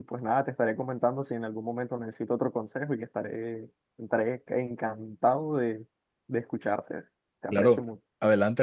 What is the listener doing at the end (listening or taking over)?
taking over